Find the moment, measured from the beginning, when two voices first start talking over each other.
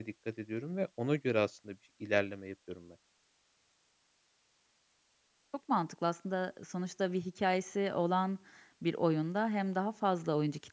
none

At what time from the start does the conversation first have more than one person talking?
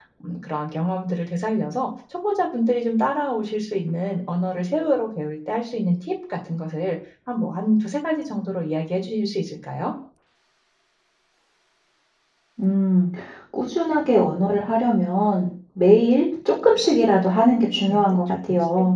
17.1 s

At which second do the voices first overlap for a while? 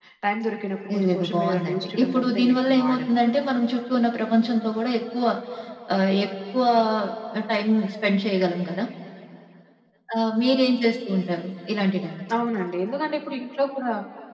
0.9 s

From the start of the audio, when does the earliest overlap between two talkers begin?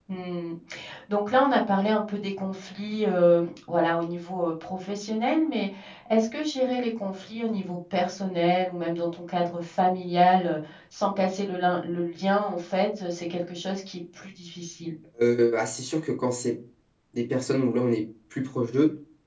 none

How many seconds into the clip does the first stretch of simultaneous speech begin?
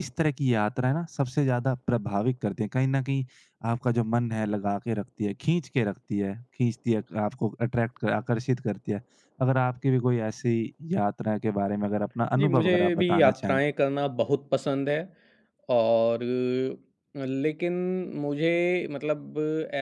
12.4 s

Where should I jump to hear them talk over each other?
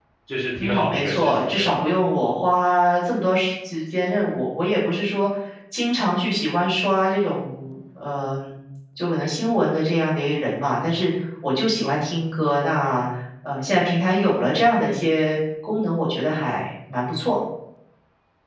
0.6 s

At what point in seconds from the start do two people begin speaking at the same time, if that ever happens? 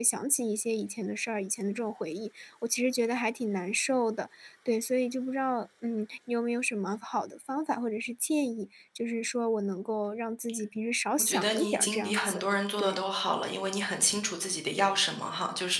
11.2 s

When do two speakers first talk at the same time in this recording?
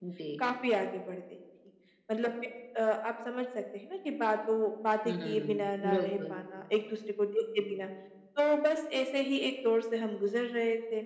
5.0 s

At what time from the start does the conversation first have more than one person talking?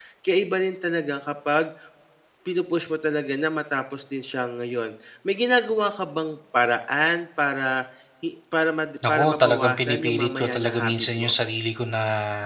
9.0 s

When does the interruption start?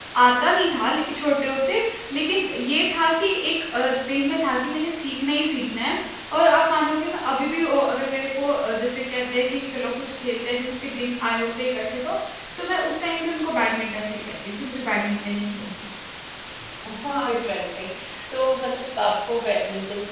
none

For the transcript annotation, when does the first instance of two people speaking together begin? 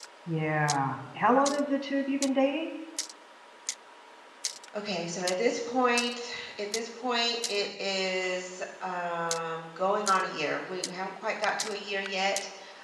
none

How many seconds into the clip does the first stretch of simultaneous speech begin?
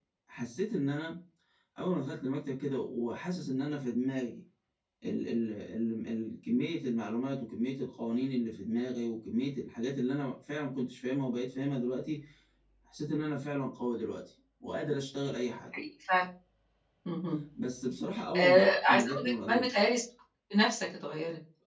18.4 s

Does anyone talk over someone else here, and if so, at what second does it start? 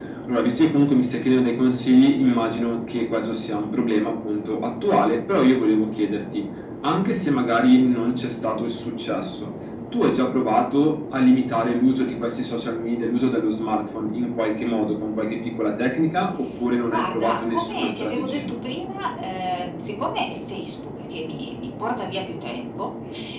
16.9 s

